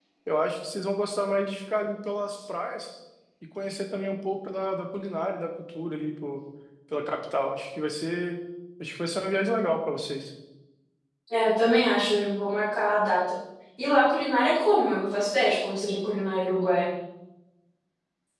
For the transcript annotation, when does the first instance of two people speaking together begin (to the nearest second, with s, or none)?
none